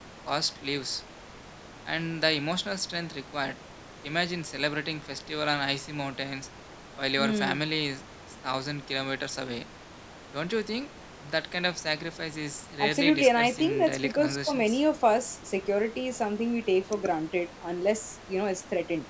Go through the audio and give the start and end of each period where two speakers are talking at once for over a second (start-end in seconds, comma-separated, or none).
12.8-14.8